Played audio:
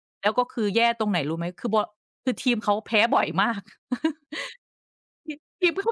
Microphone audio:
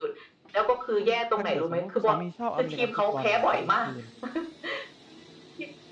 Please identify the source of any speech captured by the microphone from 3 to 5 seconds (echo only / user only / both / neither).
both